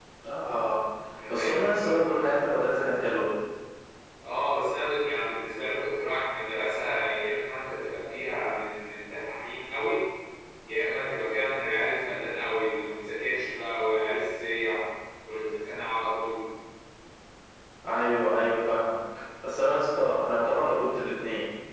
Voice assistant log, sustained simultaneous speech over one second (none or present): present